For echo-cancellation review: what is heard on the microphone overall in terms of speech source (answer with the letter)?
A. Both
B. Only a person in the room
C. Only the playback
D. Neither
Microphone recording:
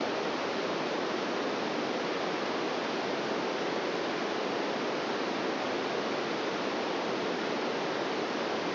D